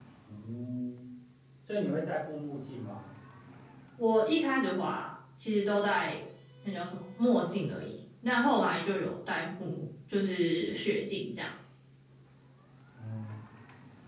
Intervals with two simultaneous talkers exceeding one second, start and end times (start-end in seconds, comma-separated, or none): none